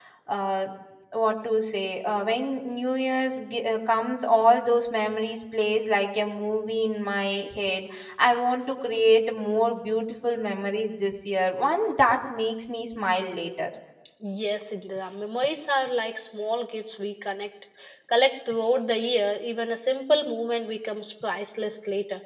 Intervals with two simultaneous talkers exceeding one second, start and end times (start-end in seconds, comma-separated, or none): none